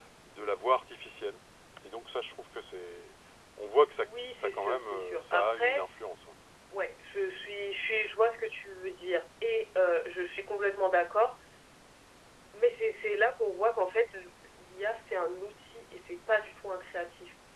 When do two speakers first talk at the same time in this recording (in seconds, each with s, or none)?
4.0 s